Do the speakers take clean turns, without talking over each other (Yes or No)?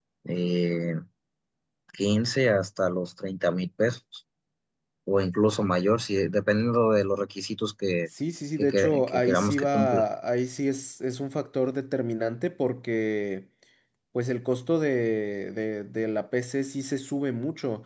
No